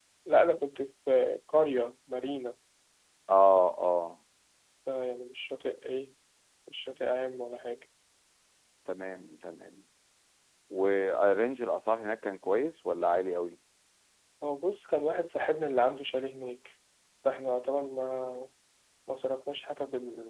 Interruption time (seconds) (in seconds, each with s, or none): none